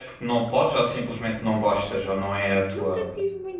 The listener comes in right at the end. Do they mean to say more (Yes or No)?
Yes